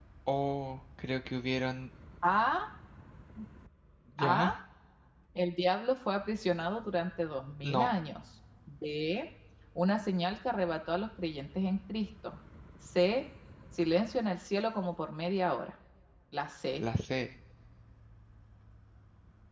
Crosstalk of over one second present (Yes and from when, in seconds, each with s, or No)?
No